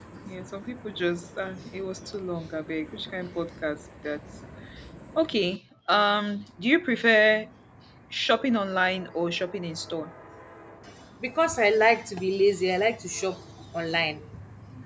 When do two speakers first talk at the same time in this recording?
none

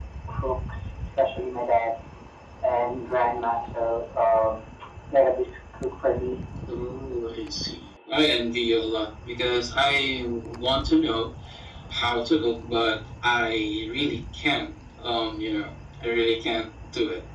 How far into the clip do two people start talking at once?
none

